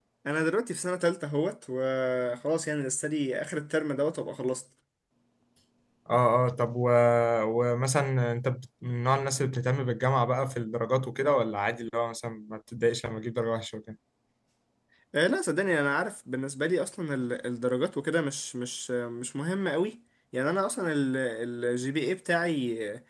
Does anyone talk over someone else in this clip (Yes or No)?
No